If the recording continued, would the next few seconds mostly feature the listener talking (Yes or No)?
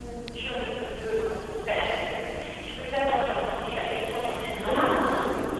No